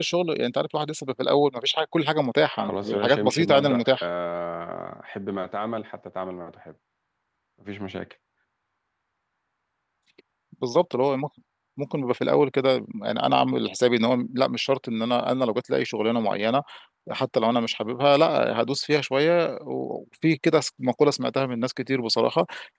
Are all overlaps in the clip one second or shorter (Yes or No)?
No